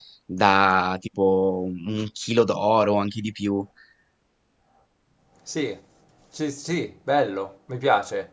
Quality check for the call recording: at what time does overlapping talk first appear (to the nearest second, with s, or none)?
none